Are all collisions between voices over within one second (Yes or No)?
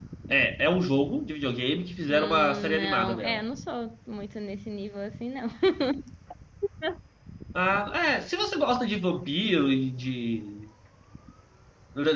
No